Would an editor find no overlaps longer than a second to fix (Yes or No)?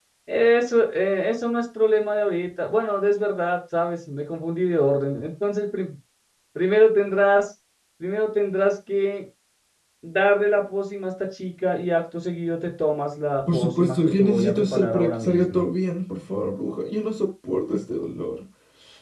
No